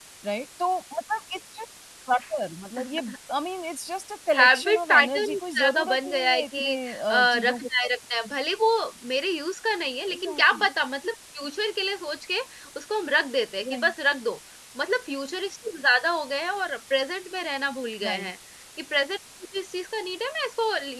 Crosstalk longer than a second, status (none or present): present